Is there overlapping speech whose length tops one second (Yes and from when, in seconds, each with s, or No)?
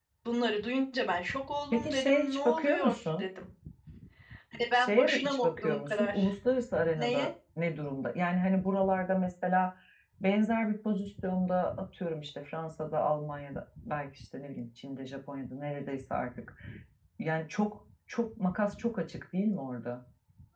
Yes, from 1.7 s